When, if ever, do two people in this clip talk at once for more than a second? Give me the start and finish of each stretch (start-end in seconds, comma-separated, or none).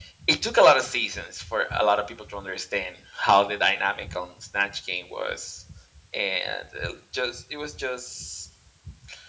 none